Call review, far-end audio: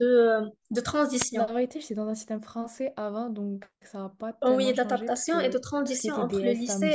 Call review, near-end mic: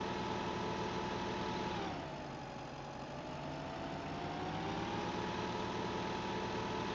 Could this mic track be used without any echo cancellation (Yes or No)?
Yes